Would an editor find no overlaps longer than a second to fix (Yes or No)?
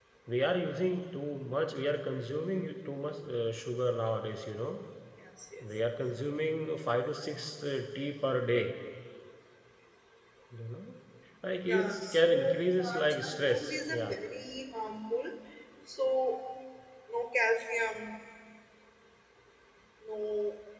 No